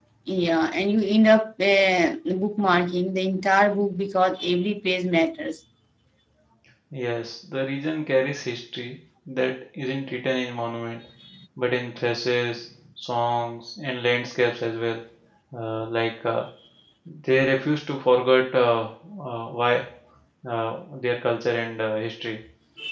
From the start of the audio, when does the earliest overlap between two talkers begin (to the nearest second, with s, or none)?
none